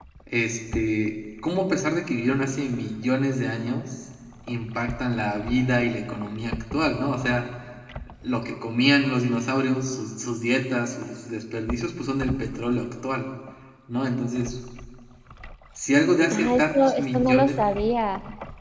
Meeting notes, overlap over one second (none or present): present